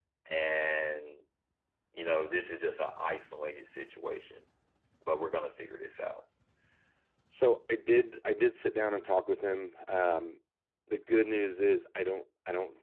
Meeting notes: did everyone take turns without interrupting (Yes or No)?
Yes